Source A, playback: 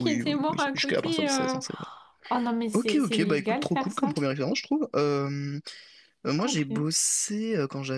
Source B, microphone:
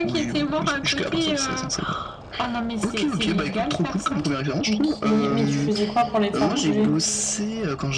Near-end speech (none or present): present